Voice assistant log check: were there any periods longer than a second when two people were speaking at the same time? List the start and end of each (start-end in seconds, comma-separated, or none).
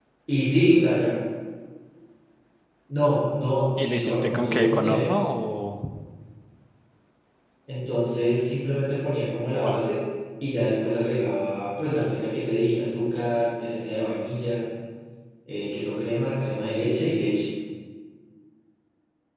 3.8-5.1